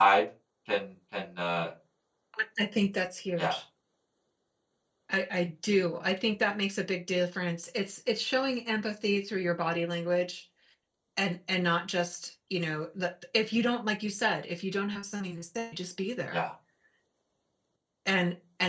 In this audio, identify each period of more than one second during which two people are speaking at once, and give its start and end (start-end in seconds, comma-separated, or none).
none